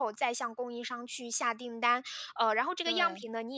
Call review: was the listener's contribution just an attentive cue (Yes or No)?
Yes